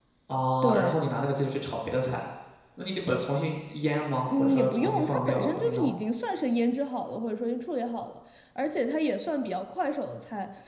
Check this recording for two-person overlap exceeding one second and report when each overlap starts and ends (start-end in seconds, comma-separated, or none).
4.3-5.9